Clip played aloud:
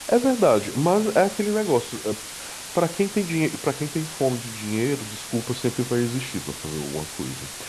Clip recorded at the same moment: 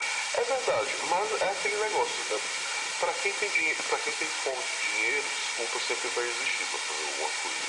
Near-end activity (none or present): none